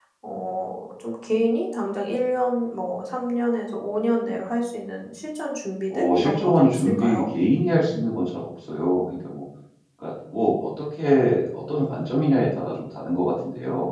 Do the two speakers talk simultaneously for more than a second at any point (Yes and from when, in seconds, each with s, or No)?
Yes, from 5.9 s